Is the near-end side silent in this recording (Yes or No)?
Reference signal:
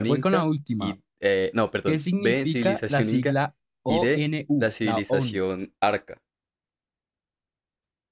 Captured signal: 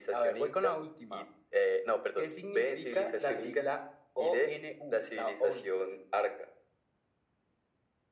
Yes